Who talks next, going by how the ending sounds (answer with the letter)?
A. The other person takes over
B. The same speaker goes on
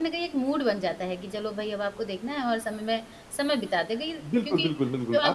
A